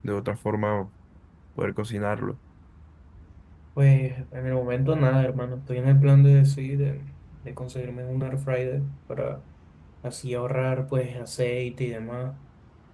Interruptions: none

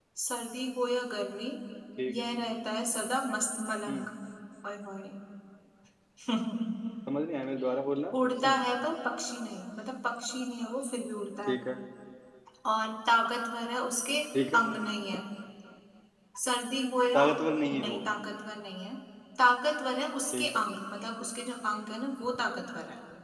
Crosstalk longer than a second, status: none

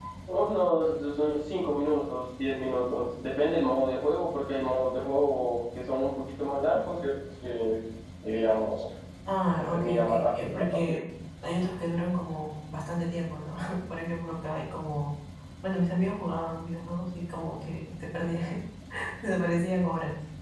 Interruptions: present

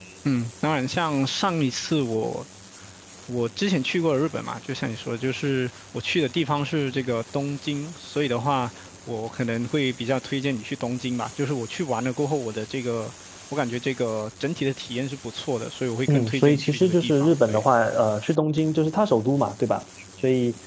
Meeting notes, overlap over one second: present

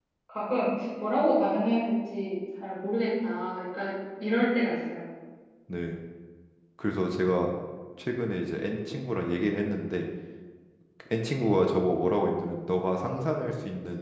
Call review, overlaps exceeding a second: none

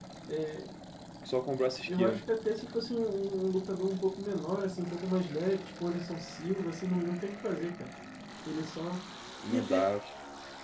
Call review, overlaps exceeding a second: none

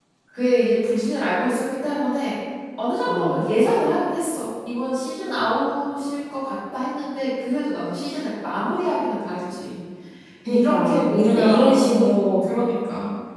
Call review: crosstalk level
present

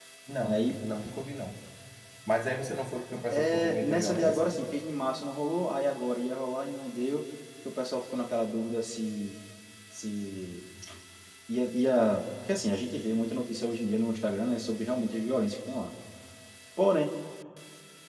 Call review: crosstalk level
present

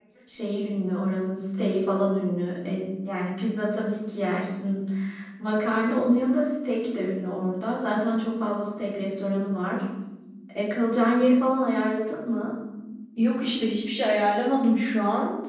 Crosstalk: none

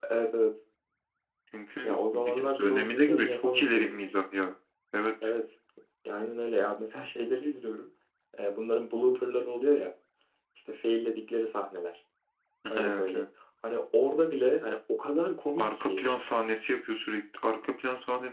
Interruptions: present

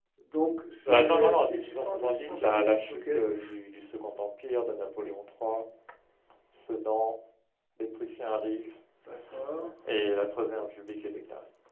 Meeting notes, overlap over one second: present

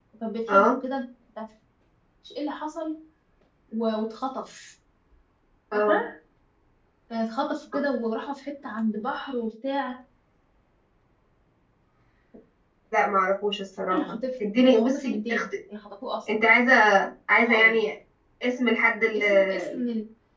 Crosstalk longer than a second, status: present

